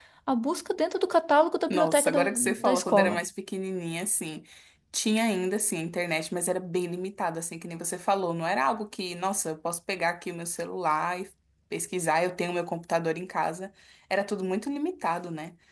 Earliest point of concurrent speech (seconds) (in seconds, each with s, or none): 1.7 s